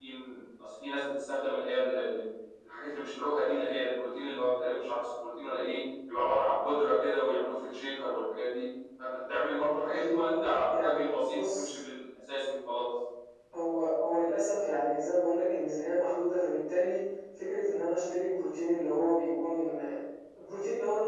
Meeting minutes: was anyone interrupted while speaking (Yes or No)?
Yes